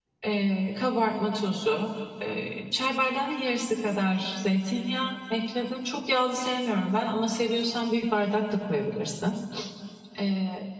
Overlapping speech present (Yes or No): No